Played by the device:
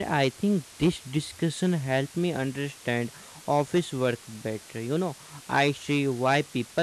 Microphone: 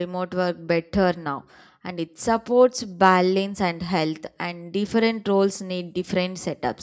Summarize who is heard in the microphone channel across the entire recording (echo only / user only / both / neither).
user only